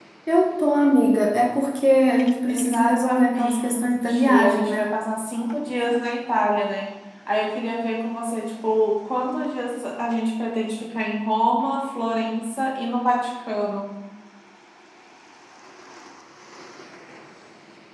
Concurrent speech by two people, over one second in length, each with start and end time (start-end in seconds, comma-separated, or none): 2.5-4.9